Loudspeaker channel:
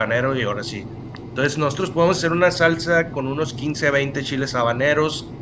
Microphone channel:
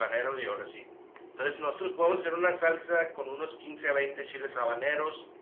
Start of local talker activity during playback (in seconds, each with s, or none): none